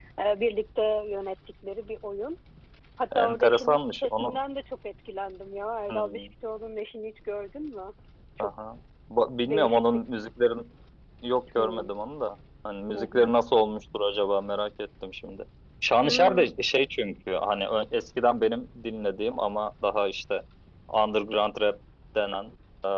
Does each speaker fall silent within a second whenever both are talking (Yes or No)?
No